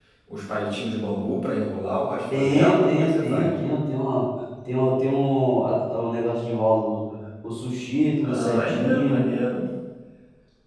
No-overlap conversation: No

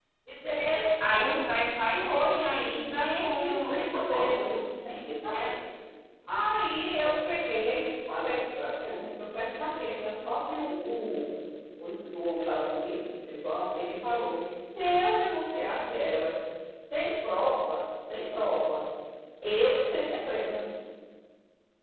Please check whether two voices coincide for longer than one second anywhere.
Yes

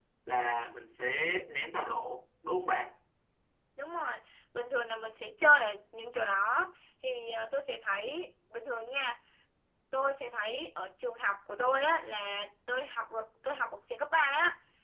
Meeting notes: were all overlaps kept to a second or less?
Yes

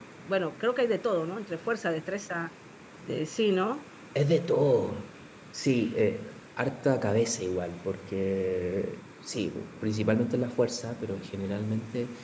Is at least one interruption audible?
No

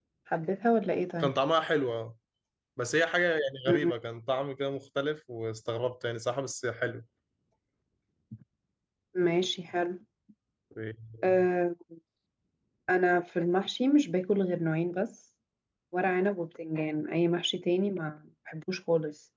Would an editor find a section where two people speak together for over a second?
No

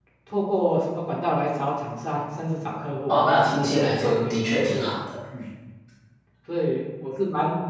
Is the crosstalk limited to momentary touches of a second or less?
No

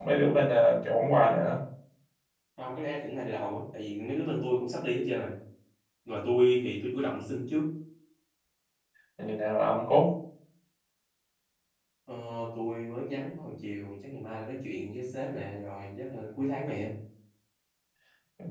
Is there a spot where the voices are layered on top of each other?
No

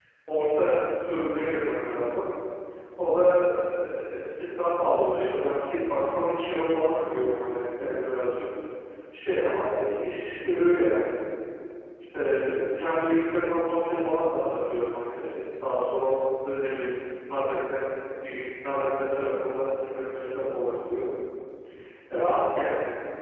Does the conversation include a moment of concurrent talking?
No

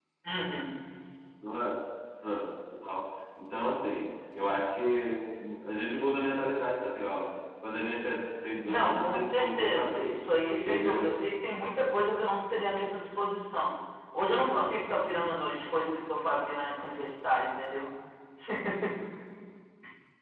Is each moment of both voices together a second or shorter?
No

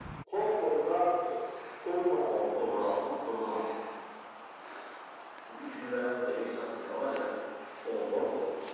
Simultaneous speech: No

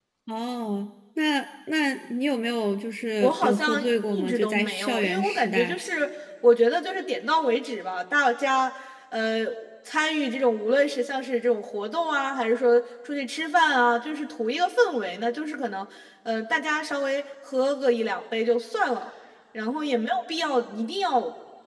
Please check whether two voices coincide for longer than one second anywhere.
Yes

